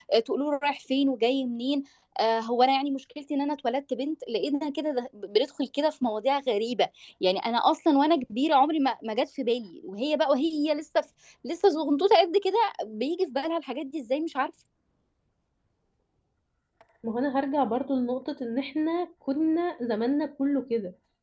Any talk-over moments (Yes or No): No